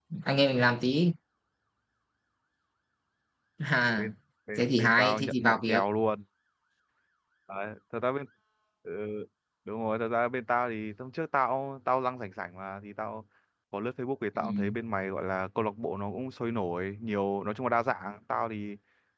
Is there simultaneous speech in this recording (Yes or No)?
Yes